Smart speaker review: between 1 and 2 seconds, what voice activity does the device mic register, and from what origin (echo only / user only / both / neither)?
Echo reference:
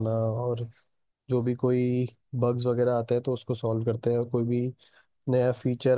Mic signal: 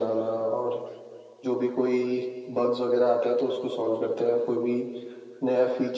echo only